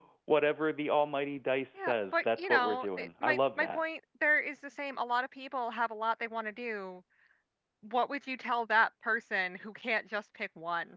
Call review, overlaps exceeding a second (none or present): present